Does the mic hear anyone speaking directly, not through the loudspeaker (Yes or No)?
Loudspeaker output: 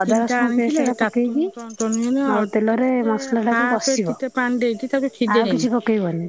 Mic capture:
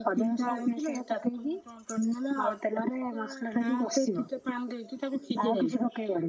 No